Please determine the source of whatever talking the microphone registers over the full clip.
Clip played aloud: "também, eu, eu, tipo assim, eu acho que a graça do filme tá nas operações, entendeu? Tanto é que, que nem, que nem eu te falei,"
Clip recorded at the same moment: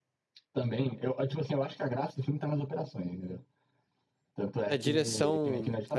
both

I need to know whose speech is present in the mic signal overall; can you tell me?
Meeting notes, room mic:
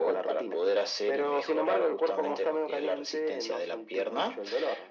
echo only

